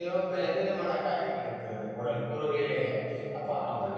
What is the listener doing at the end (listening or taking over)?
listening